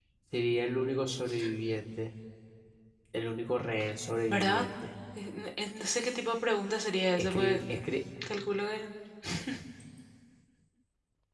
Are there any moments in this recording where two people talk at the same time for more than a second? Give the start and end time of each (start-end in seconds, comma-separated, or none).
none